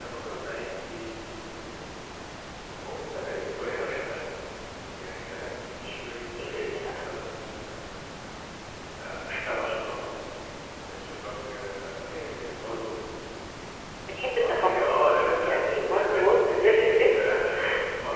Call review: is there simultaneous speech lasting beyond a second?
Yes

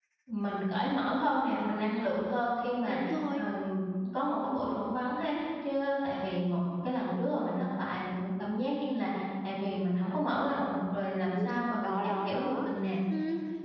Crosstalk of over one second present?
Yes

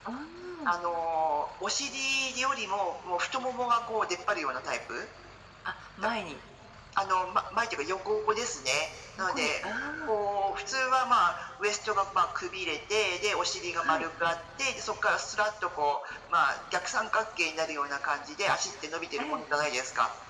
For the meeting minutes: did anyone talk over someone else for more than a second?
No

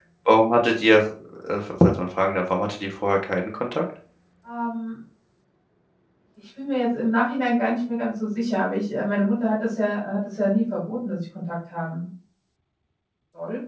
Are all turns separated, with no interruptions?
Yes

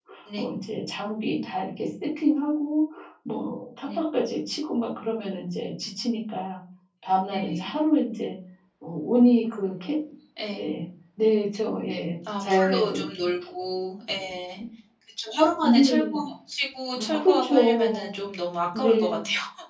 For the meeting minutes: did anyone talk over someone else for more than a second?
Yes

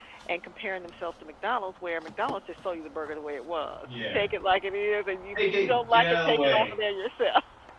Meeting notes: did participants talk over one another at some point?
Yes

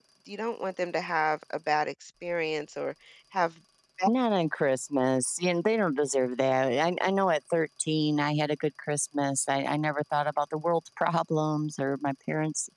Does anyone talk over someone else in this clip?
No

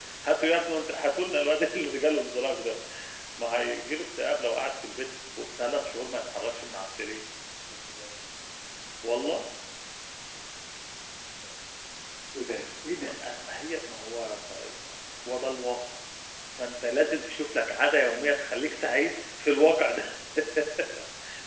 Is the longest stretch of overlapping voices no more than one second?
Yes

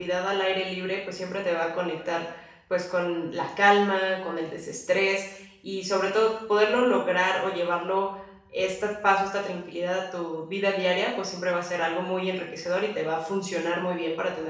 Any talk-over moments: No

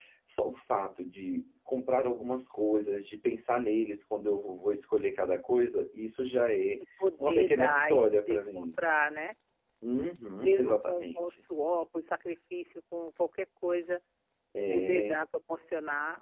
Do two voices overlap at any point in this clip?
Yes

